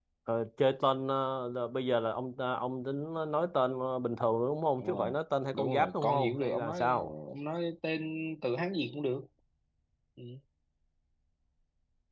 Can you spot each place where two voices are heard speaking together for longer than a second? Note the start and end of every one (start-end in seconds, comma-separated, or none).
5.5-6.9